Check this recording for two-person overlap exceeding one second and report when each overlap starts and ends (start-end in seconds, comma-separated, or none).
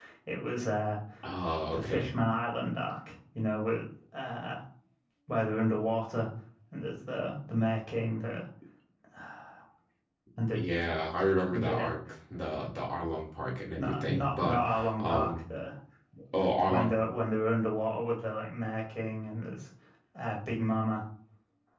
13.8-15.4